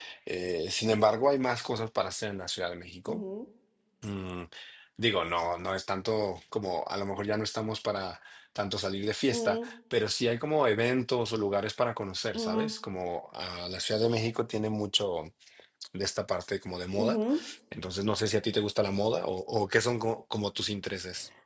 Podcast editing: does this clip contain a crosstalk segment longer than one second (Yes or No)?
No